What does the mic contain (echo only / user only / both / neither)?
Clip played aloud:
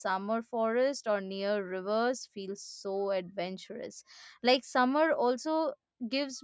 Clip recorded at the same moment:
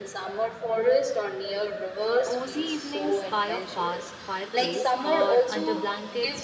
both